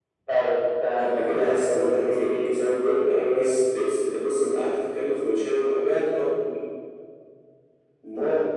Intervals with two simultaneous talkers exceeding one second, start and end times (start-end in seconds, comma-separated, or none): 1.0-3.6